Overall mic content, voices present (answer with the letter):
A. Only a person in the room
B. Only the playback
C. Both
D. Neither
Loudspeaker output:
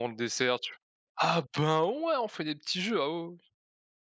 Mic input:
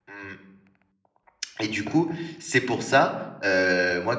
A